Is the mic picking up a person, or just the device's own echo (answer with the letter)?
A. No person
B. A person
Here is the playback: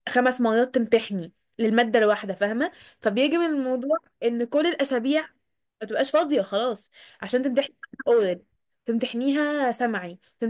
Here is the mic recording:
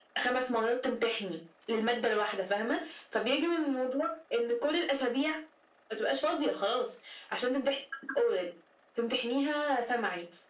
A